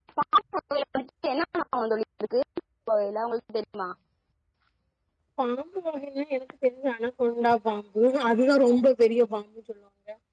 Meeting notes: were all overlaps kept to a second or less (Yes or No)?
Yes